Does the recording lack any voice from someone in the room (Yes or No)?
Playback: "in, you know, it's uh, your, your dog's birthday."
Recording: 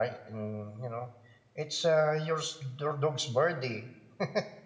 Yes